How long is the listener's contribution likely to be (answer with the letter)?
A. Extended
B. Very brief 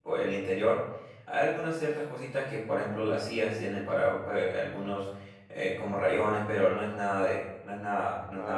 A